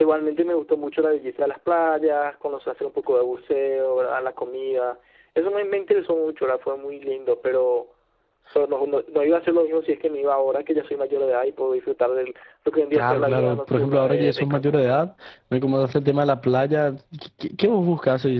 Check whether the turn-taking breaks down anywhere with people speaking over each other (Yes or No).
Yes